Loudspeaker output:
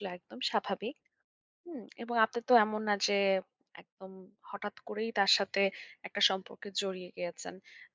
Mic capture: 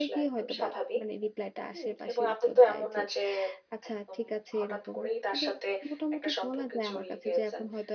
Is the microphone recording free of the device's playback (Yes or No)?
No